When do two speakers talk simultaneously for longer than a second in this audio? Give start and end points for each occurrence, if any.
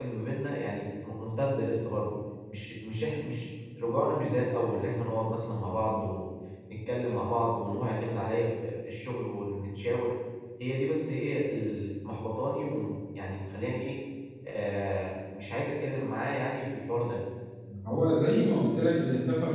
none

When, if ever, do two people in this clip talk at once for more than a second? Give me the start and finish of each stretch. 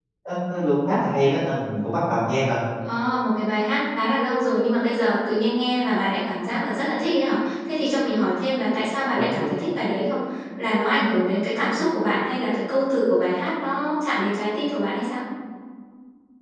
none

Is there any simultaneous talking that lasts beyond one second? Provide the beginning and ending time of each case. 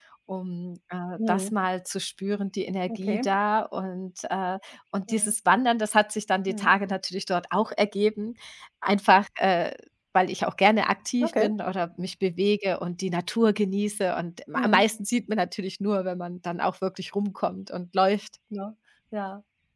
none

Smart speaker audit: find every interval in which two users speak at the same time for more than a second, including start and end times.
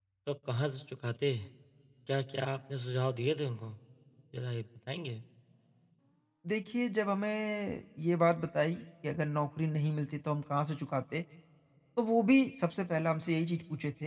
none

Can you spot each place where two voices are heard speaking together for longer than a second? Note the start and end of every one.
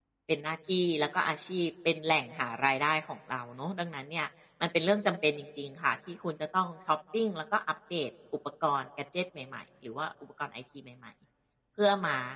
none

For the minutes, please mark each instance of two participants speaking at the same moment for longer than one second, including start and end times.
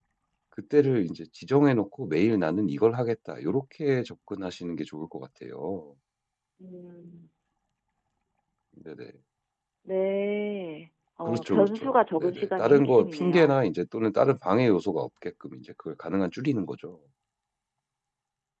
11.2-13.5

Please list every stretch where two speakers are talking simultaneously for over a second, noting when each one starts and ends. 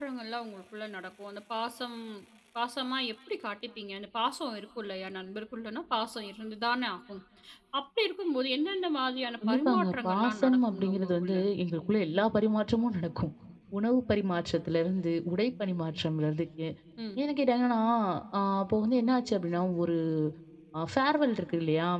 9.5-11.4

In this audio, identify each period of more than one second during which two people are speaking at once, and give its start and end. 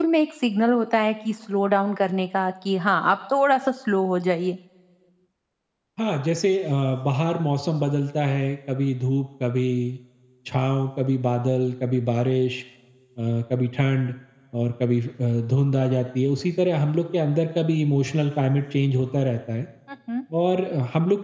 none

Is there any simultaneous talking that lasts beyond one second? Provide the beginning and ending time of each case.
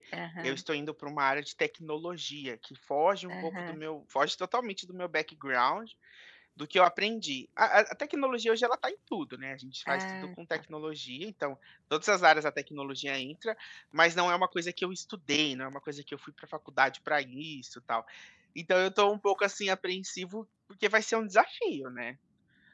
none

